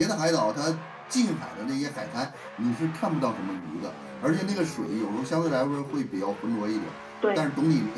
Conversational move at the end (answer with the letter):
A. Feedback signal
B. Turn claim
A